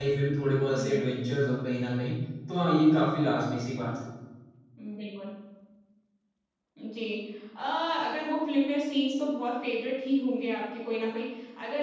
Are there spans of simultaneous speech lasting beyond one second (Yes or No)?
No